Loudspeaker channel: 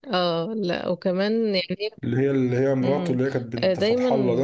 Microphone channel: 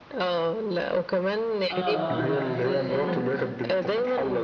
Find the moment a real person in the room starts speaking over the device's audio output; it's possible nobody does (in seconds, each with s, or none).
1.7 s